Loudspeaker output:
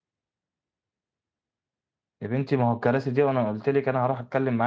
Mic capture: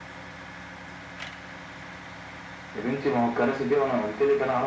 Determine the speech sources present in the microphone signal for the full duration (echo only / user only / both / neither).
echo only